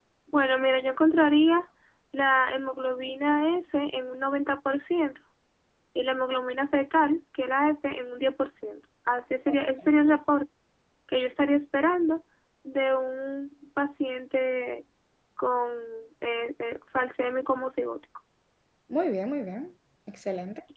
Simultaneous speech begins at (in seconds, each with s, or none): none